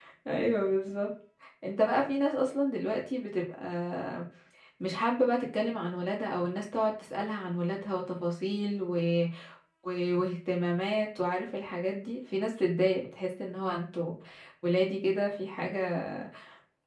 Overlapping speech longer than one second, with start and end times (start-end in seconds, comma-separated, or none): none